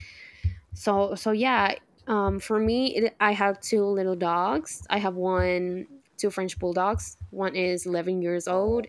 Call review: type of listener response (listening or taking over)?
listening